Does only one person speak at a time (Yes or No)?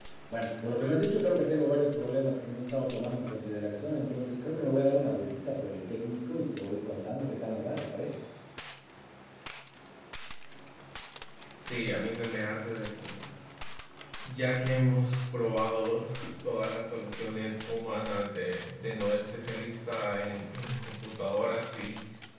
Yes